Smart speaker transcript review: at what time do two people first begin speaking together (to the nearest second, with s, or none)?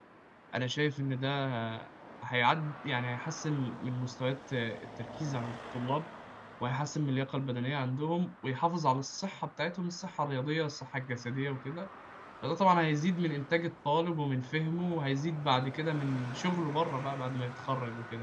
none